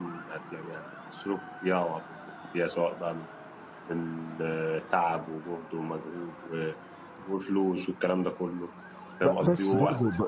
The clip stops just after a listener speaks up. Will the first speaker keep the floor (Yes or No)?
No